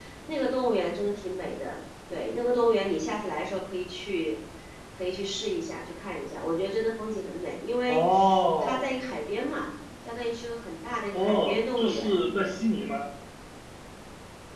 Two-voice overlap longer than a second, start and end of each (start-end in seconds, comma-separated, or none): 11.1-12.5